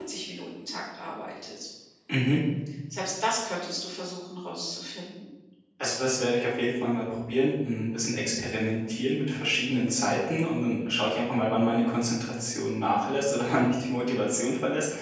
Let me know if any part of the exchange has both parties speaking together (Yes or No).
No